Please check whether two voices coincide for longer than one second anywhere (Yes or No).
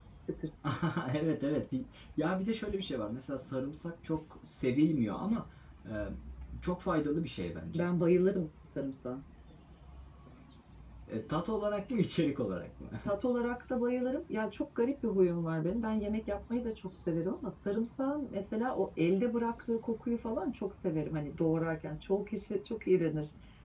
No